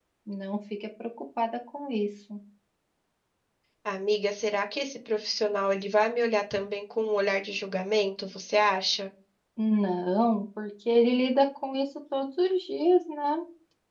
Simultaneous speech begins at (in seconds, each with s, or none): none